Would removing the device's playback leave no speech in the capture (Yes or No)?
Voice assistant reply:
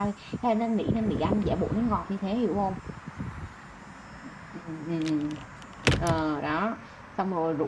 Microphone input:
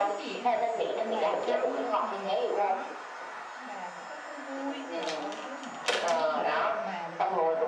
No